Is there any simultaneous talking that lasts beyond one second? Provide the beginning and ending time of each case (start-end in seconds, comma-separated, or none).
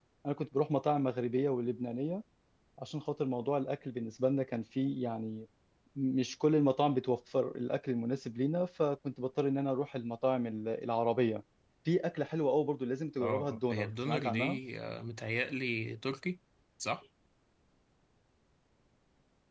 13.2-14.6